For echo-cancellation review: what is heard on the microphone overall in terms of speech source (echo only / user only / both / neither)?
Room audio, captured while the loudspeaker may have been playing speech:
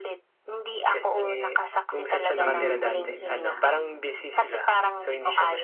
both